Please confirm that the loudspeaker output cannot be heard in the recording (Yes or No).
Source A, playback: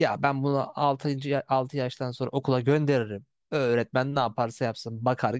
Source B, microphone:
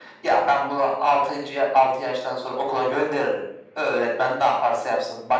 No